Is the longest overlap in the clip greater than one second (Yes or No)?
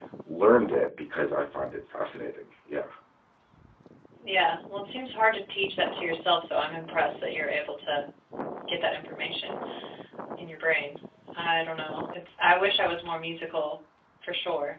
No